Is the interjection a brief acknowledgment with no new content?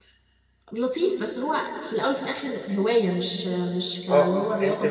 No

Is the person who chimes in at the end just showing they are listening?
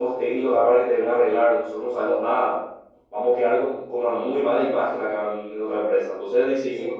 Yes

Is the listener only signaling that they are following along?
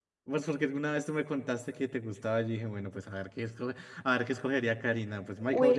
No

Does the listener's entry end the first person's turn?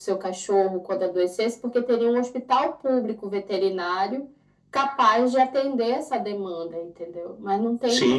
Yes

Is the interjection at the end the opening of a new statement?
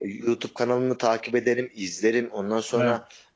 No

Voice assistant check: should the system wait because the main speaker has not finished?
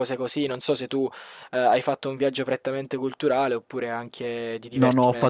No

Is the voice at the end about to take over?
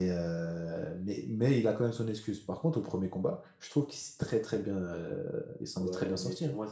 Yes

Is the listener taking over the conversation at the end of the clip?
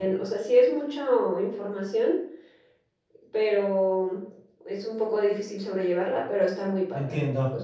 Yes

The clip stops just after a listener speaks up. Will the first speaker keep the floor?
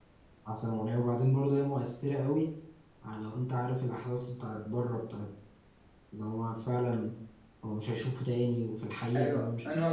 No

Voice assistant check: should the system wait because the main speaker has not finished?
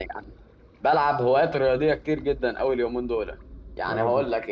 Yes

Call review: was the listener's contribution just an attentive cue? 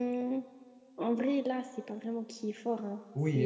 No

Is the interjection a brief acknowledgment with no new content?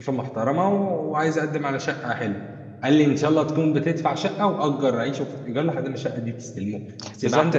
No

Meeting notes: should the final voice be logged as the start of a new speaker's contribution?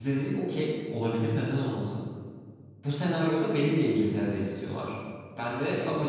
No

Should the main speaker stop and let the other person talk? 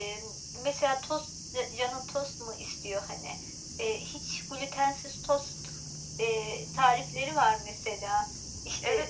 Yes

